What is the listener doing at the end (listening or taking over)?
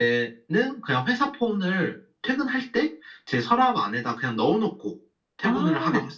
taking over